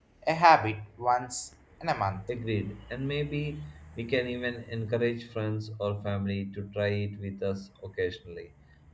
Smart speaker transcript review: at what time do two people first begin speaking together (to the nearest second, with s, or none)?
none